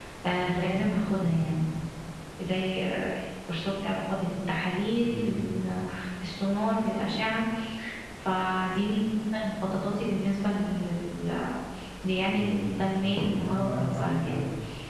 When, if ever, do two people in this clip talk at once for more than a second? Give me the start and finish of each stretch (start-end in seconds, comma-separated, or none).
13.0-14.3